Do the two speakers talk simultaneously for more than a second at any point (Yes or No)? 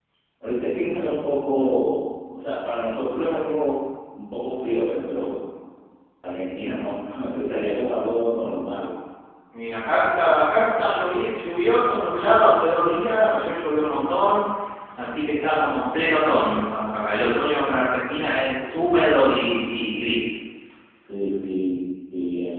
No